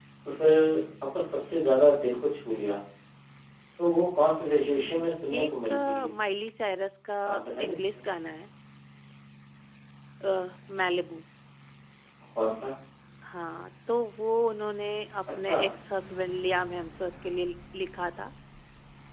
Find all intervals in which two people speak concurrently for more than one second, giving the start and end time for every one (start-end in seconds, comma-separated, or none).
4.7-6.1